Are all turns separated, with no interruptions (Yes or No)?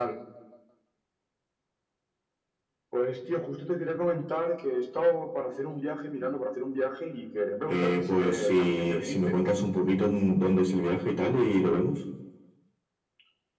No